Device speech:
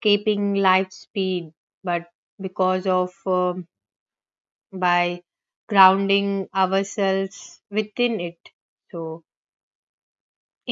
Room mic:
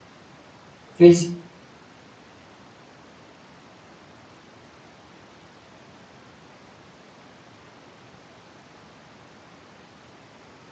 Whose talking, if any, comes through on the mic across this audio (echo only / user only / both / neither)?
user only